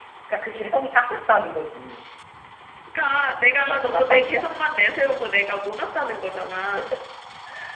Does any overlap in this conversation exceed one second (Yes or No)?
Yes